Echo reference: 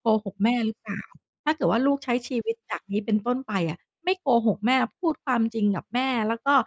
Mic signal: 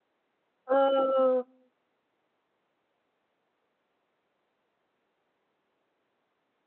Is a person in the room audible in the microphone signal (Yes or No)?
Yes